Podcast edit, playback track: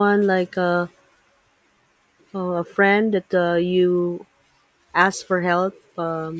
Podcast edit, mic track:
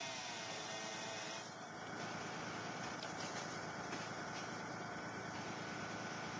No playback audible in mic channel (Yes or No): Yes